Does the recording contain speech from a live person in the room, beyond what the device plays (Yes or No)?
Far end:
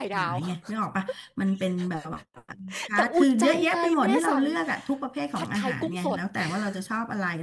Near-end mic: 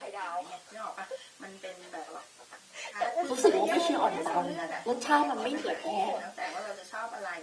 Yes